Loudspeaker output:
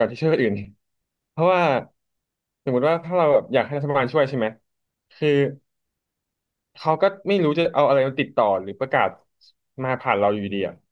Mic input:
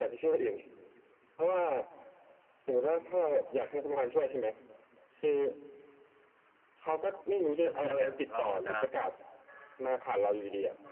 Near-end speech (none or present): present